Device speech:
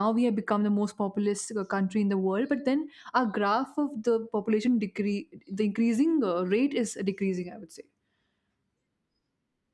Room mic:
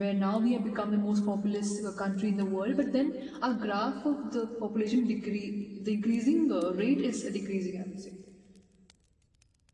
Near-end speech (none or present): none